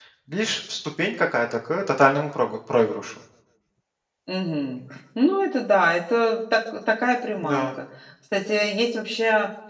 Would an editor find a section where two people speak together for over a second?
No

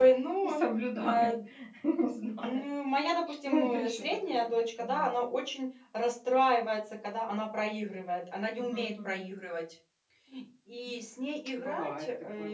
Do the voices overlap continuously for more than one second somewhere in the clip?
Yes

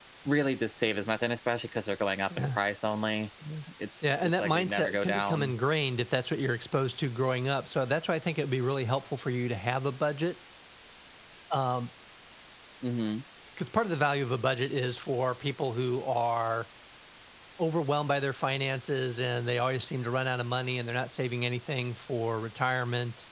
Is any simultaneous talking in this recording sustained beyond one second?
Yes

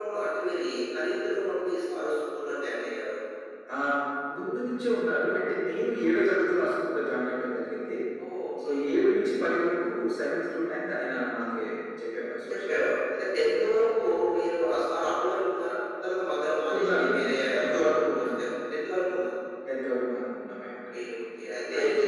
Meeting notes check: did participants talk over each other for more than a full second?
Yes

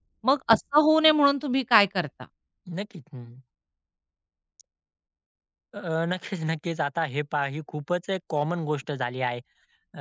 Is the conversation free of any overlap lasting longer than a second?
Yes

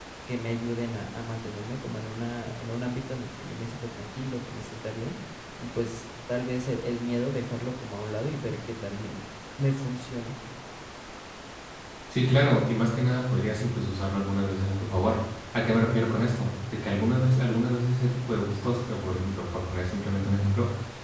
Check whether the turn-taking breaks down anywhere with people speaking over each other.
No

